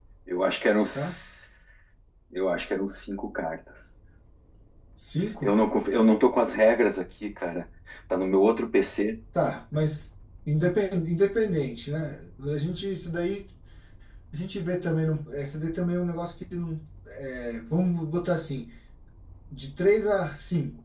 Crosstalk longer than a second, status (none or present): none